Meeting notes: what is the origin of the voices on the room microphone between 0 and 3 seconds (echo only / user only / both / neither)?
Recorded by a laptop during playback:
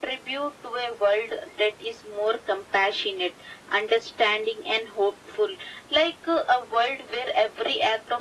echo only